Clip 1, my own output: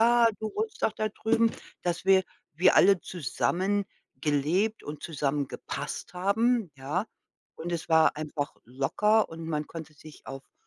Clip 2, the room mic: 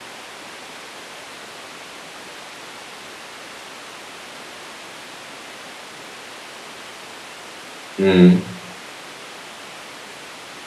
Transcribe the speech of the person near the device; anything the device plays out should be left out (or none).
Mhm.